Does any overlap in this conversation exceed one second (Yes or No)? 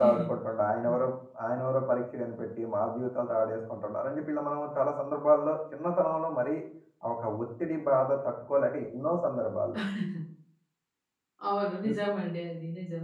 No